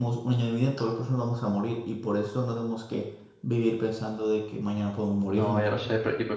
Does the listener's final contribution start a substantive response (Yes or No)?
Yes